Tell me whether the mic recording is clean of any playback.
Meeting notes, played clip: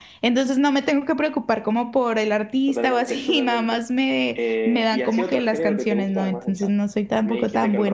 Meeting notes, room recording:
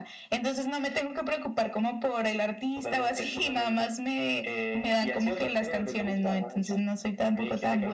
No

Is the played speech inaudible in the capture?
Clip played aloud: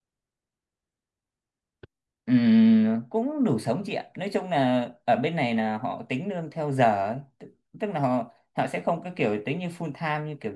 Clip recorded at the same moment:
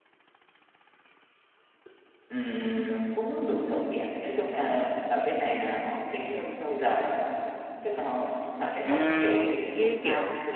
No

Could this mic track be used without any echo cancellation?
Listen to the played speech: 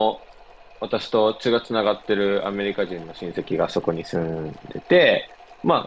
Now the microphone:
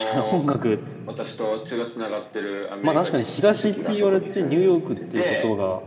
No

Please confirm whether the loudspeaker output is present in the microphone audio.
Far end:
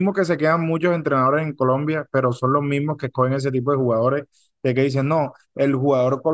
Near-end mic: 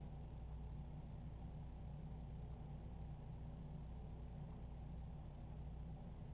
No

